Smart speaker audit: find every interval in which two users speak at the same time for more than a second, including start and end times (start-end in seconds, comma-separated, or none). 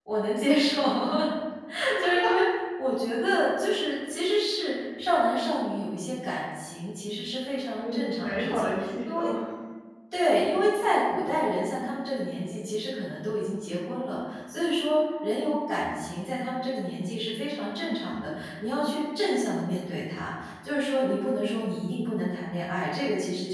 7.8-9.3